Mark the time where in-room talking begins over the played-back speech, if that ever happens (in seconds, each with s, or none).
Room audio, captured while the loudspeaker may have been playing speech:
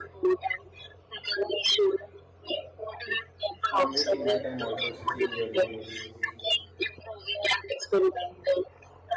3.7 s